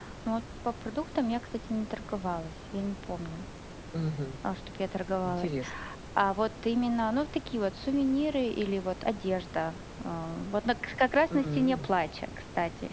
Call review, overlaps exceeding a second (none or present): none